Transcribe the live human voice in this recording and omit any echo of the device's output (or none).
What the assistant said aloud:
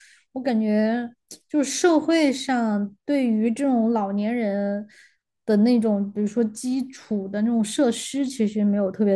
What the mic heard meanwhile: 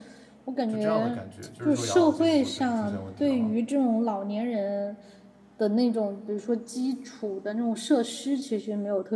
就这样的感觉。就是说养老金如果真的出现问题的话。